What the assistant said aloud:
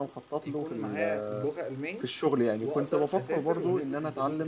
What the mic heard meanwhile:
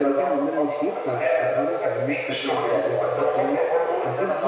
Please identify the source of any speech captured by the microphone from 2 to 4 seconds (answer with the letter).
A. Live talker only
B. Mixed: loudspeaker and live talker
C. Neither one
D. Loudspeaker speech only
B